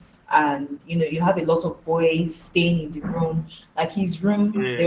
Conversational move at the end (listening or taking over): listening